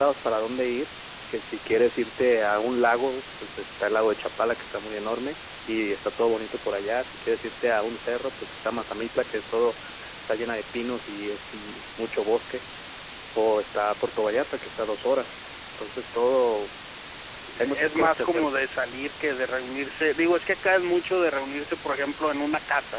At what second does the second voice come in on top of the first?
17.6 s

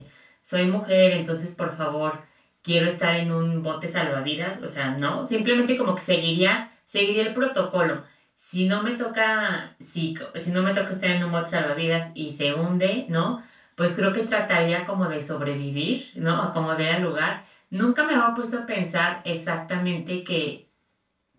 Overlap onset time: none

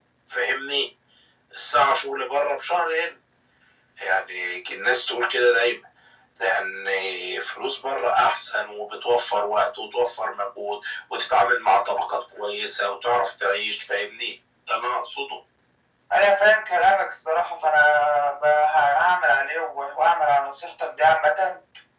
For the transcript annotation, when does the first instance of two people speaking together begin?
none

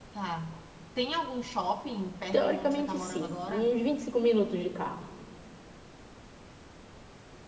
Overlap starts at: 2.3 s

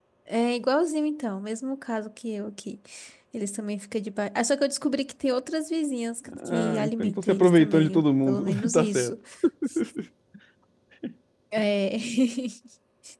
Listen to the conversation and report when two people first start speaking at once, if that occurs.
6.3 s

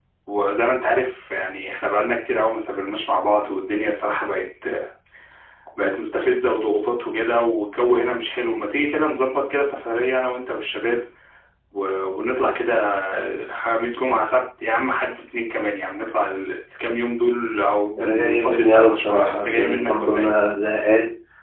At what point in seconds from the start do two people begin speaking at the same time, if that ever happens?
18.0 s

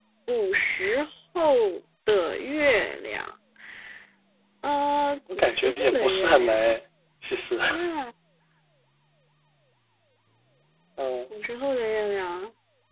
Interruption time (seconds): 5.3 s

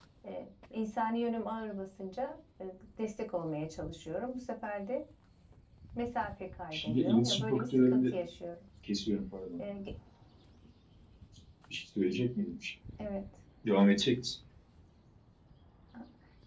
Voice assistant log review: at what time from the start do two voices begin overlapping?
6.7 s

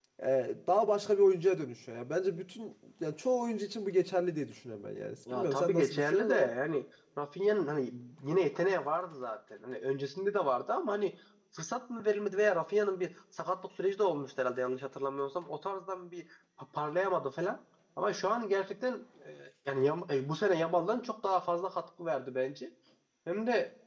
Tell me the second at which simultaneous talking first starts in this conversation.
5.3 s

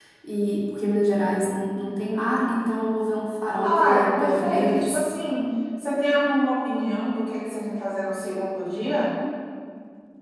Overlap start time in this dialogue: 3.6 s

